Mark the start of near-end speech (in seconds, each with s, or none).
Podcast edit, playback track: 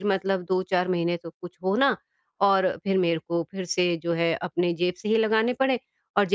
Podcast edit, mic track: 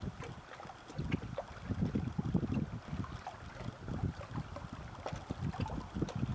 none